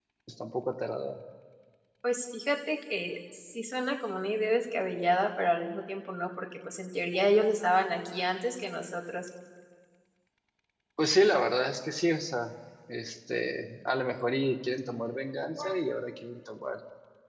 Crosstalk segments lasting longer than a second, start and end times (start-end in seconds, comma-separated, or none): none